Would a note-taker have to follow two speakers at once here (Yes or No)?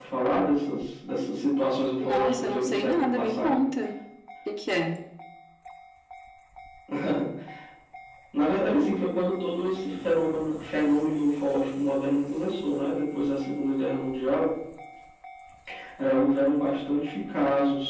Yes